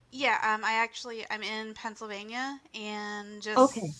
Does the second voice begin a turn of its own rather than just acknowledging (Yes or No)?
No